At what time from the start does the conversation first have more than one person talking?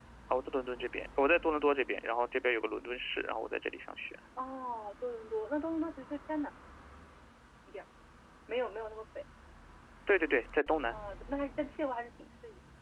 none

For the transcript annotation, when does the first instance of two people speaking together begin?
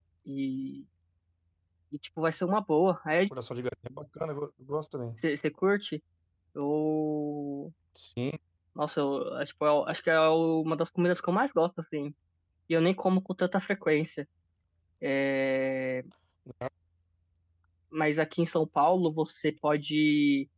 none

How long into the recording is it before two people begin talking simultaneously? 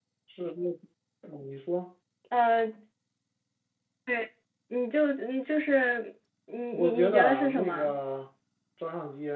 6.7 s

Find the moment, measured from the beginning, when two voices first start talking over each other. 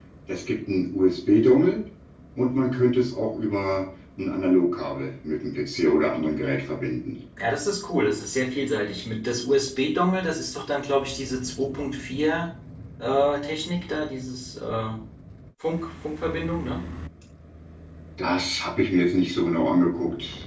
none

